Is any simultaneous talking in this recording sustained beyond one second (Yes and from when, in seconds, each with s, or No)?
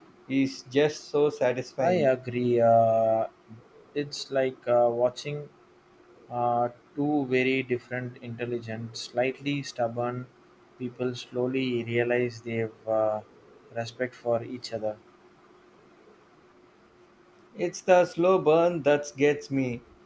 No